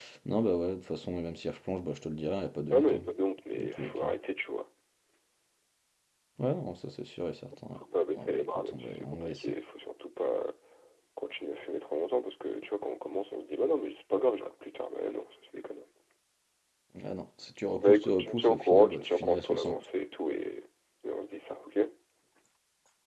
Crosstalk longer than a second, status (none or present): present